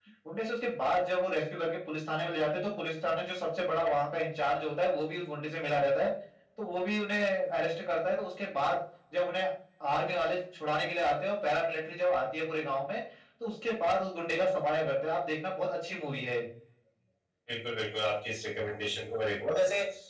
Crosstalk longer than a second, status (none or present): none